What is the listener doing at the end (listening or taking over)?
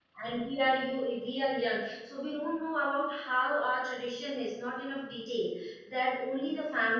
listening